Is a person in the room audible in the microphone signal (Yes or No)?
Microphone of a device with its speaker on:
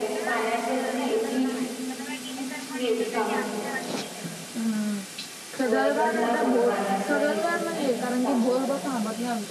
Yes